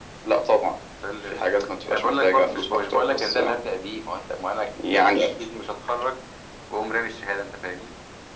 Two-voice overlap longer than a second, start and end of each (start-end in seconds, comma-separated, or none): 1.9-3.5